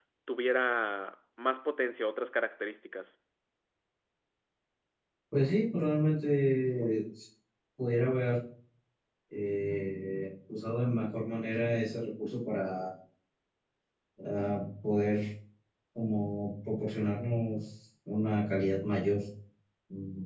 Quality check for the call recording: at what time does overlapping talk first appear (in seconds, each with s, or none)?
none